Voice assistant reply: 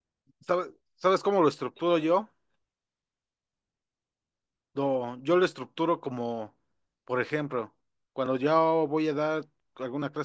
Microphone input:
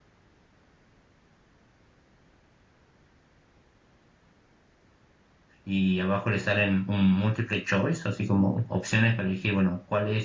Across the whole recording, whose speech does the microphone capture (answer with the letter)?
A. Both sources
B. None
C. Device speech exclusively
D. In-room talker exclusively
D